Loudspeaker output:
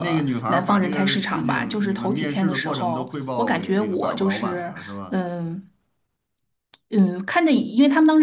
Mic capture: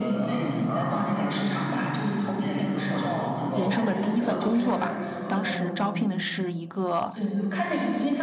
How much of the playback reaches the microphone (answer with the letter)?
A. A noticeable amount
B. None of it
A